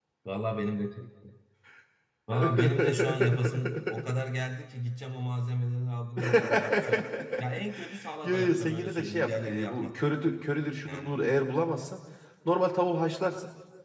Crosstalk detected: Yes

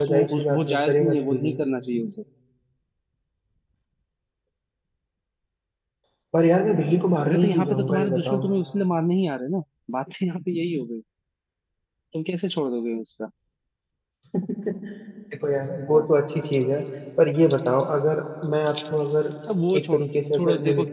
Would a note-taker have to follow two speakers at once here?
Yes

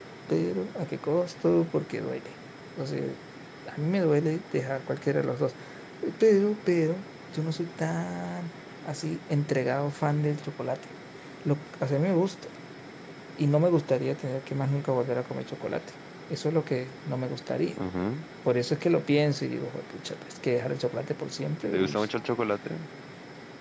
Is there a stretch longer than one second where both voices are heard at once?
No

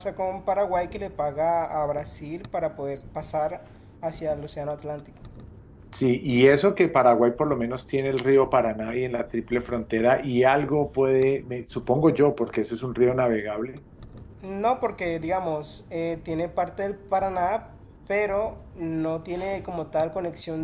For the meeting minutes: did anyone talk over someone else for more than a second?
No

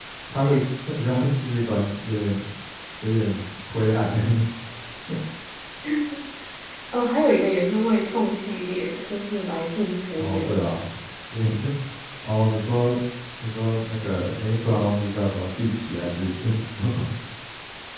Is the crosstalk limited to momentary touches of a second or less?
Yes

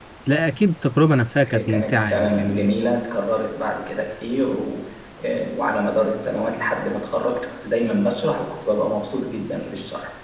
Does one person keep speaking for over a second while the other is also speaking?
Yes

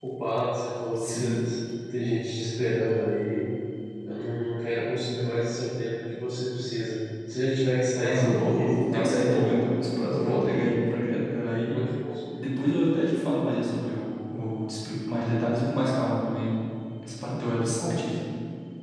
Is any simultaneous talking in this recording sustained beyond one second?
Yes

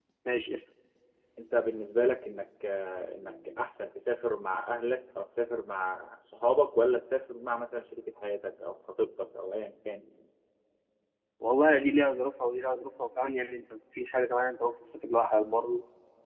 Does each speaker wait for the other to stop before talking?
Yes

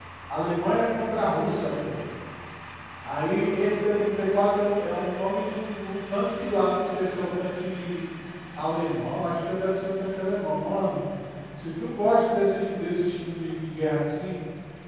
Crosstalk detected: No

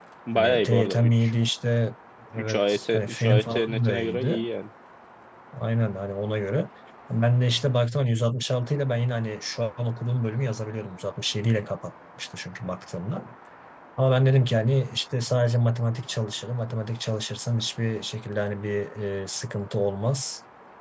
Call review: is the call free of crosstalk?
No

